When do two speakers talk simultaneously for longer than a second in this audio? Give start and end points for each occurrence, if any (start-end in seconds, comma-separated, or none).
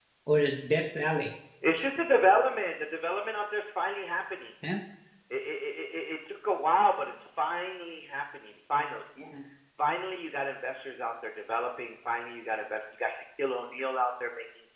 none